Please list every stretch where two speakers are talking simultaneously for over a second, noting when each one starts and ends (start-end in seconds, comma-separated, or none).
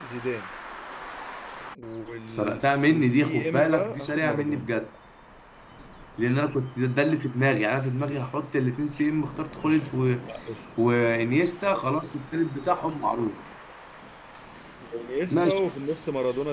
2.3-4.7